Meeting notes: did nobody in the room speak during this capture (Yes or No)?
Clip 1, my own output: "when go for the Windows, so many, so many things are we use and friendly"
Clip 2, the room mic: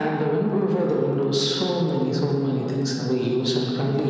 No